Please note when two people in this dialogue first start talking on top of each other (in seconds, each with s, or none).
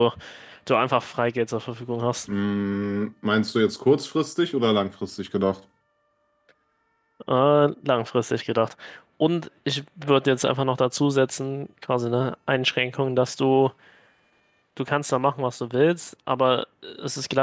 none